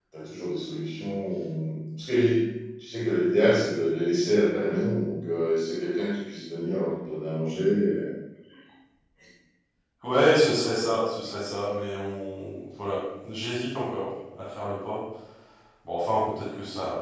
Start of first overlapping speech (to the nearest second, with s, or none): none